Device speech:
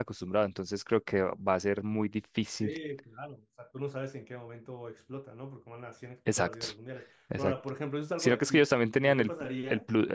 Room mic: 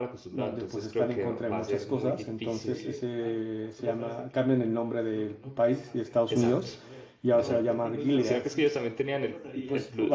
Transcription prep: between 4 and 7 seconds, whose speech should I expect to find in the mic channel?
both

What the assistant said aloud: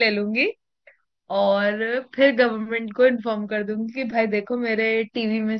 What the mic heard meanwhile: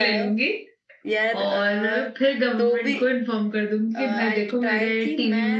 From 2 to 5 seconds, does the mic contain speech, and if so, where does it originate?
both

